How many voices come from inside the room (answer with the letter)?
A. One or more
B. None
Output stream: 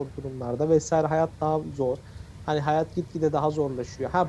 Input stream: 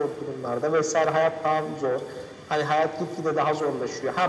B